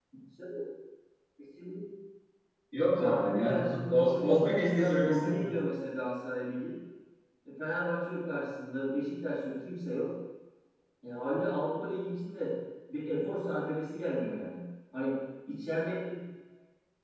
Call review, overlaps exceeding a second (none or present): present